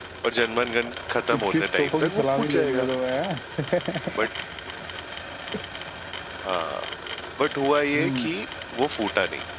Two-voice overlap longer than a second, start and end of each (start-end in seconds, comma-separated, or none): 1.3-2.9